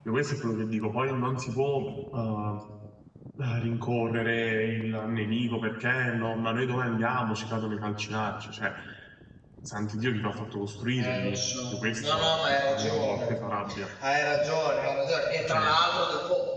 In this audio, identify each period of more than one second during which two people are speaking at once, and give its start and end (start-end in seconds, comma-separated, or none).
12.0-13.3